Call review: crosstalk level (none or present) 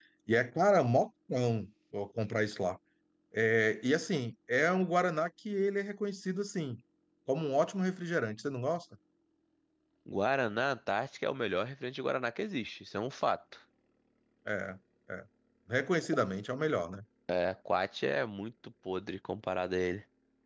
none